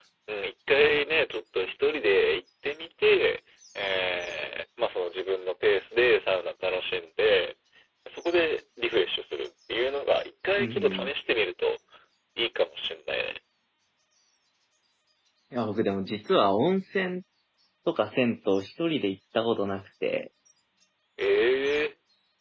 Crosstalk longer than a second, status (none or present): none